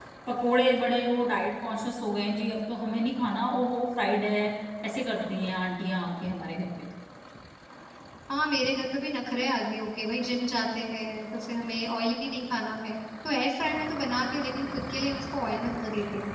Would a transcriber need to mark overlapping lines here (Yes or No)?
No